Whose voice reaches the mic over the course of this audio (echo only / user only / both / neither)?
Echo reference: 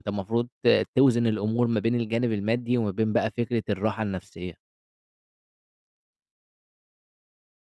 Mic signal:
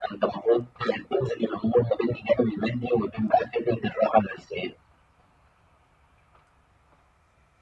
echo only